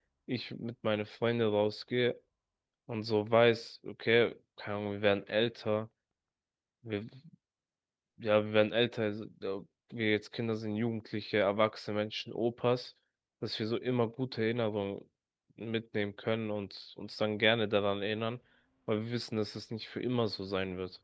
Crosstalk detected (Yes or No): No